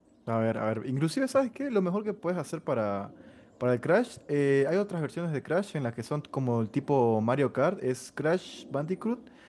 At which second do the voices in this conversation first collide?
none

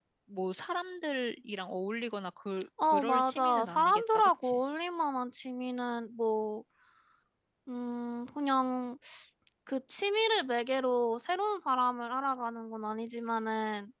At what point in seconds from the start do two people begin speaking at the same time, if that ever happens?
2.8 s

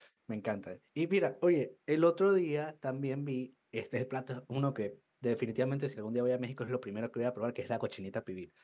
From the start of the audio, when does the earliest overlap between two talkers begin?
none

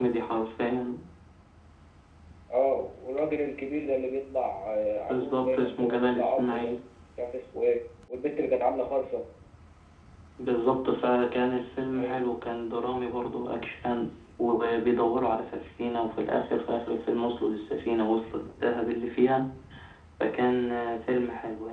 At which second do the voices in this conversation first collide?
5.1 s

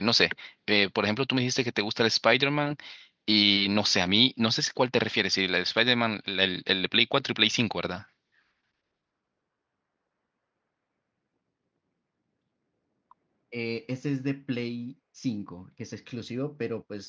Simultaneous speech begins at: none

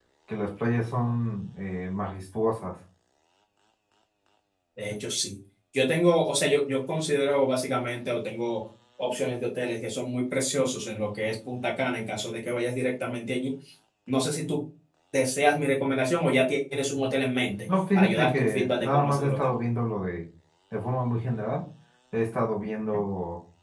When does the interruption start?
18.0 s

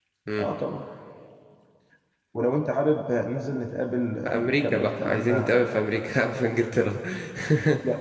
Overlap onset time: 4.2 s

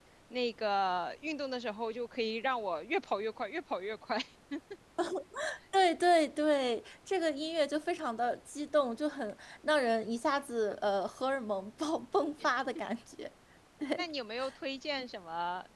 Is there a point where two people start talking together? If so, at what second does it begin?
none

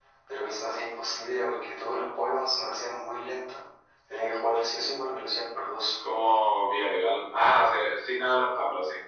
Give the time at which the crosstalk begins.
none

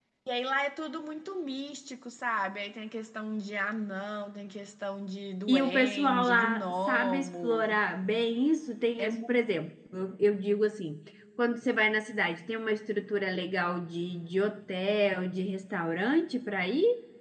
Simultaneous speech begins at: 5.5 s

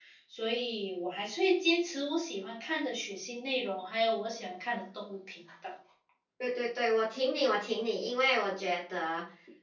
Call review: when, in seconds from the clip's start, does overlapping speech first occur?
none

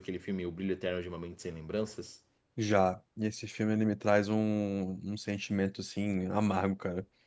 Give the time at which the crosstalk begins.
none

